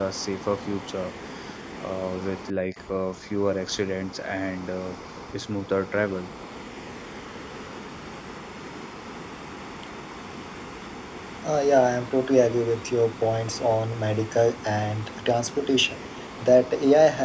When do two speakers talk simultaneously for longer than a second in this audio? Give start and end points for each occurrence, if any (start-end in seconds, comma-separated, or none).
none